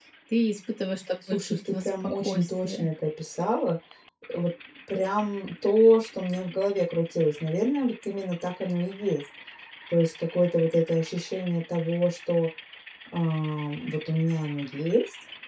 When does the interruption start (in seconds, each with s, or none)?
1.3 s